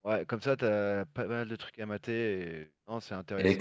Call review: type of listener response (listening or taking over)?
taking over